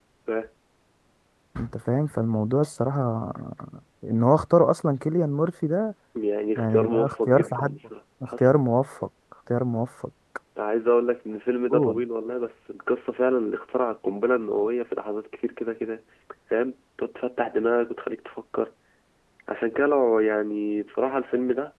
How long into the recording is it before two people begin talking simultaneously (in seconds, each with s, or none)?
6.6 s